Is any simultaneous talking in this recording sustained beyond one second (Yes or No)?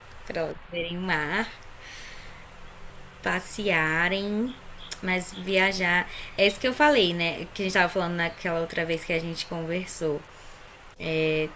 No